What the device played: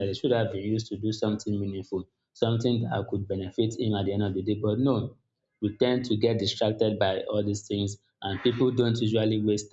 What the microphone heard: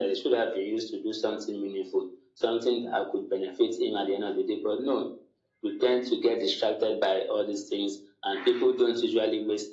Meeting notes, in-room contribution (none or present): none